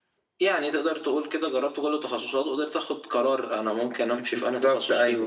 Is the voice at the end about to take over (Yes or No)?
Yes